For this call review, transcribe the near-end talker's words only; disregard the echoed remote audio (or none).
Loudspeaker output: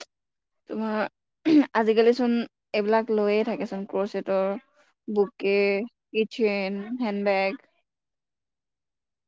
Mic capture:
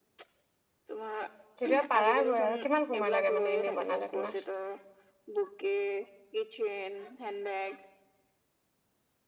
তেতিয়াা পাৰা গৈ আৰু কিমান সময় লাগে মানে এনেই বনালে তোমাক